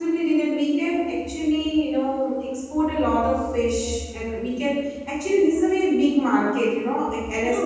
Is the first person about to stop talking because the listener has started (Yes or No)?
Yes